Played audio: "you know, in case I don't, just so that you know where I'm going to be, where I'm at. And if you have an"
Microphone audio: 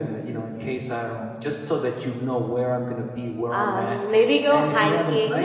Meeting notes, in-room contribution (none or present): present